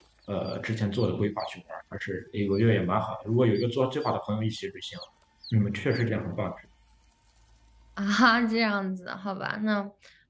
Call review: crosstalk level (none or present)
none